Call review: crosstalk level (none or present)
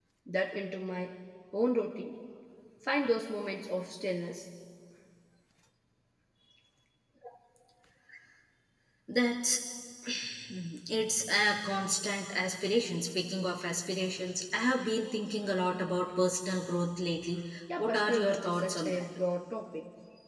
present